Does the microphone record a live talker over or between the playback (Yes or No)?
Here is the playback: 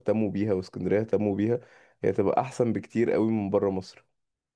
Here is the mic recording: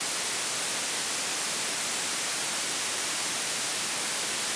No